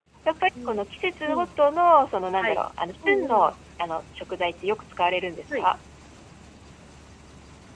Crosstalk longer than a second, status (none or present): none